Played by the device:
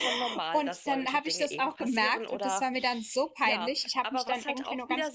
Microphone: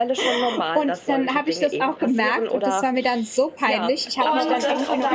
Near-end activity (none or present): present